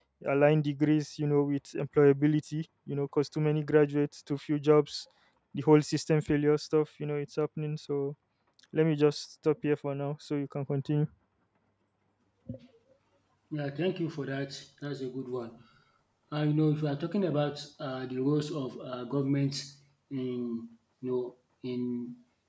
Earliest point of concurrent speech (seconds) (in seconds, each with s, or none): none